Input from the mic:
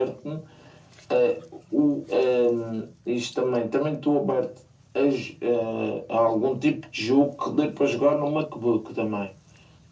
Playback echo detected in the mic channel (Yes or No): Yes